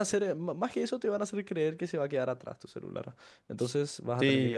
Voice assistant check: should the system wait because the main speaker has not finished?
No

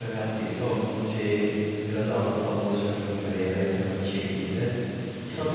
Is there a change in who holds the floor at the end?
Yes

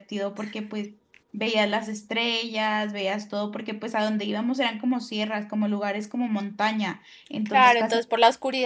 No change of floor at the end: No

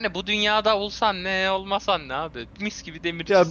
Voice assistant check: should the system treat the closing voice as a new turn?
Yes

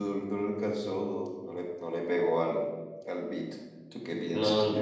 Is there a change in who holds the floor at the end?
Yes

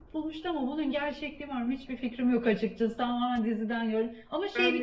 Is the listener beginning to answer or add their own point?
No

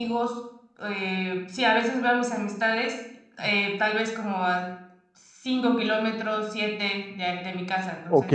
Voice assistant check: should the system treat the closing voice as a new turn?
Yes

